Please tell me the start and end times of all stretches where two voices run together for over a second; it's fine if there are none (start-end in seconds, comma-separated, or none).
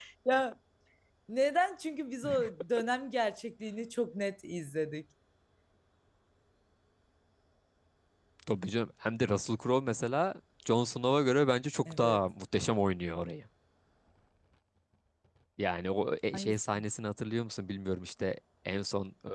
none